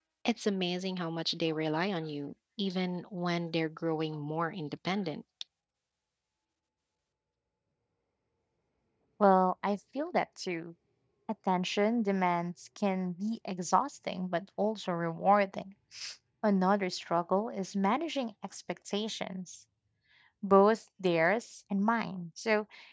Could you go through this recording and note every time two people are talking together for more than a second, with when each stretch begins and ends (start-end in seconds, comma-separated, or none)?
none